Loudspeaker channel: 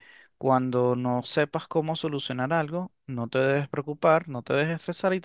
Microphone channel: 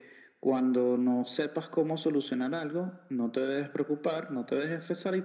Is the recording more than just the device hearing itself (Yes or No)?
No